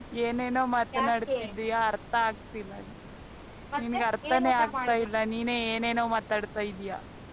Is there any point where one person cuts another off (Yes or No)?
Yes